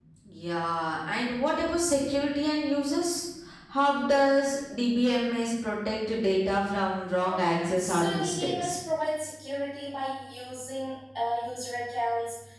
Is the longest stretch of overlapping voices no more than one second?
No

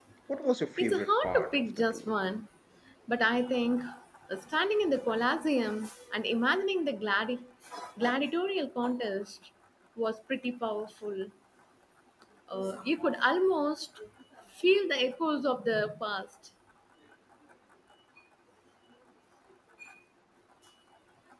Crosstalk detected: Yes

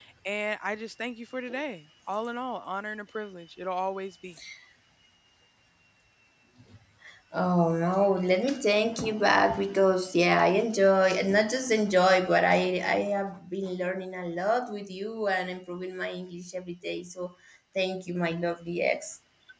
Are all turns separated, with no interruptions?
Yes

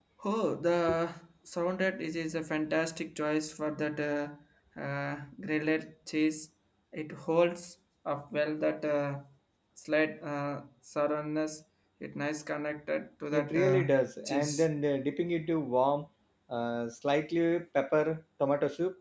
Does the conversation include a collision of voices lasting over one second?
Yes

